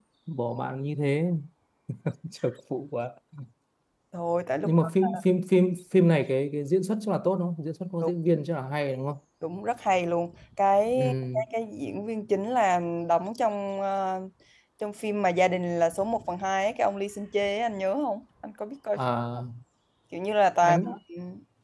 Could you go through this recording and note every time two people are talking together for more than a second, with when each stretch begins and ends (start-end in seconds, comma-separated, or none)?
none